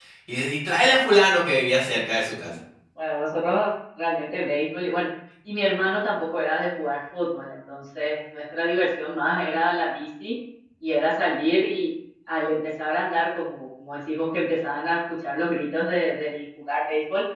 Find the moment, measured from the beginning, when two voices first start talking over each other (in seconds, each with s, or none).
none